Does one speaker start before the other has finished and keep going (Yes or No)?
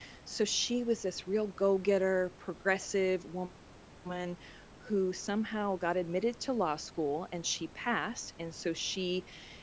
No